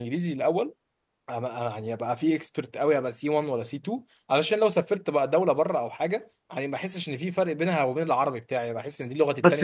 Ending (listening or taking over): taking over